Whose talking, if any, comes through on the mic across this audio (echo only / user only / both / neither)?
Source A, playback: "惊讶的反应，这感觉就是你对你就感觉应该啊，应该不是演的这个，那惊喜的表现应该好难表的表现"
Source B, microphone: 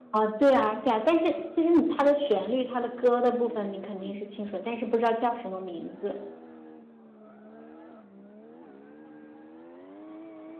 user only